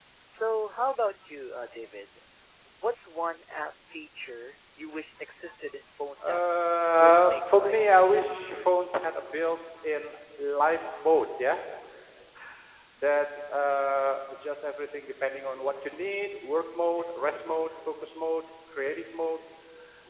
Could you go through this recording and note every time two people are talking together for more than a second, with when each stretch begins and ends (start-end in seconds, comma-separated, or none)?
7.0-8.7